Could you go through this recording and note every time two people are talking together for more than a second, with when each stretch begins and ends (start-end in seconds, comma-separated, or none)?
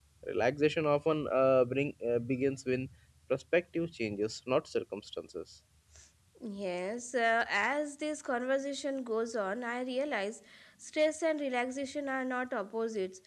none